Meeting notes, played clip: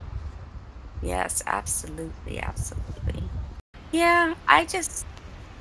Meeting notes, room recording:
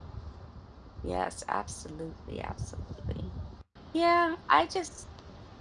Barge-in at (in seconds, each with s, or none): none